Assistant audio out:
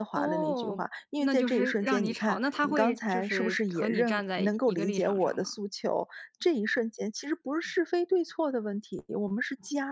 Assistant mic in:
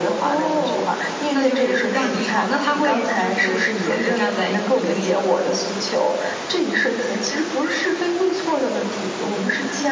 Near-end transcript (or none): none